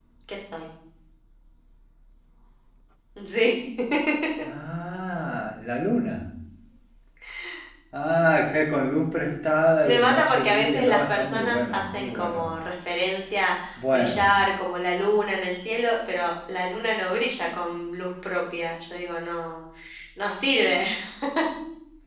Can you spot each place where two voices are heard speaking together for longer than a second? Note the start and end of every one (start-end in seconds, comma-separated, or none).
9.8-12.5